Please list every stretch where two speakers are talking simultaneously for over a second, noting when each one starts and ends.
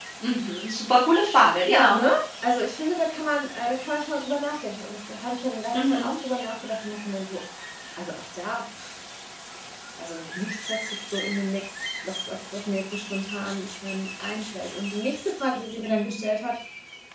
none

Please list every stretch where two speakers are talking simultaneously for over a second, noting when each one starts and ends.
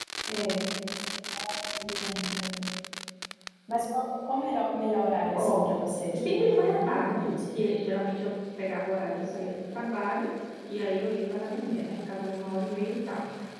6.3-7.6

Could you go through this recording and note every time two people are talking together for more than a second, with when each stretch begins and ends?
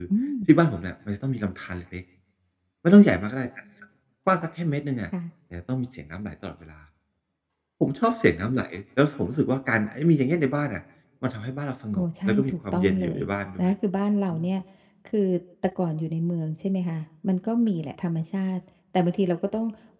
12.0-13.2

